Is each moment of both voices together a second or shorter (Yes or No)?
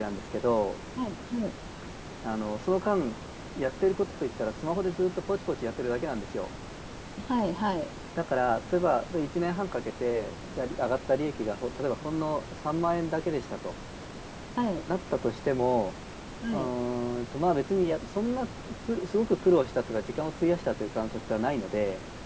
Yes